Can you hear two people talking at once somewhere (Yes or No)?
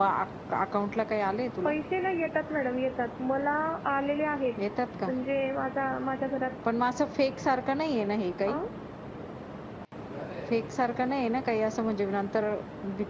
No